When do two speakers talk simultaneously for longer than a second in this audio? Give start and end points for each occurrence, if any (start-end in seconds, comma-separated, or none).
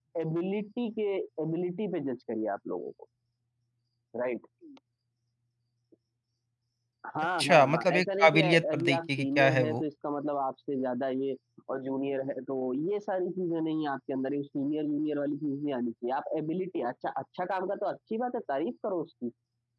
7.4-9.8